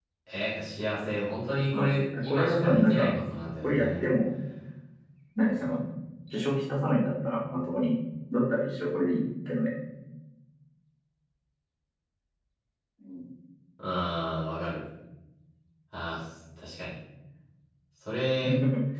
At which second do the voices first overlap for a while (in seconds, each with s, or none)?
1.7 s